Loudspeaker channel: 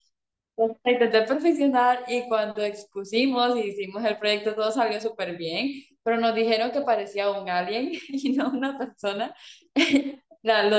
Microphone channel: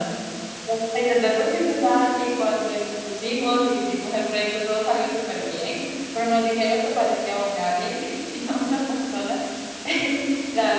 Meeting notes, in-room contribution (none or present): none